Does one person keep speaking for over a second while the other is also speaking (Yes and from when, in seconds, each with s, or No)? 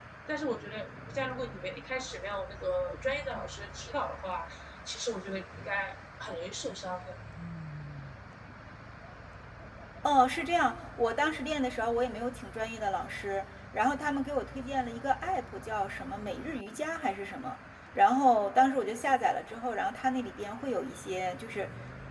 No